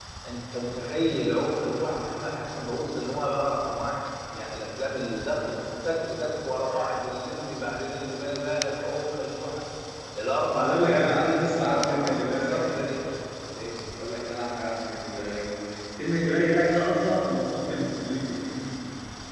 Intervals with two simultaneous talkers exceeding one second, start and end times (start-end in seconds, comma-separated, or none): 10.5-12.6